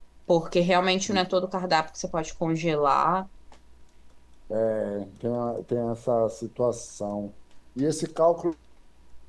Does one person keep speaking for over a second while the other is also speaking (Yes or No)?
No